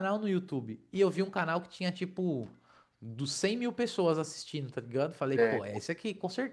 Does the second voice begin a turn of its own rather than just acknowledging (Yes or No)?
No